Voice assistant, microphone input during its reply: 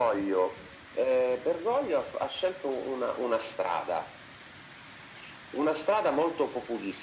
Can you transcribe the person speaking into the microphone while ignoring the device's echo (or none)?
none